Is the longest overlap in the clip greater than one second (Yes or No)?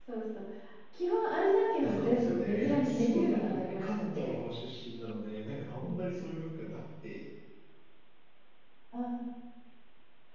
Yes